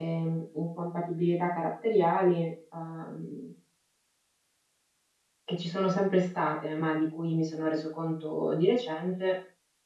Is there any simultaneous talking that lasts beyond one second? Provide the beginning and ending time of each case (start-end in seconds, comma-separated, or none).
none